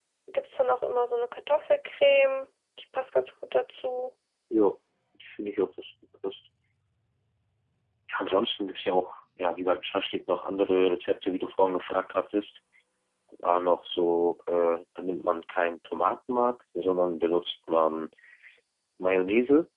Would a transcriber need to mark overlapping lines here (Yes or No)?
No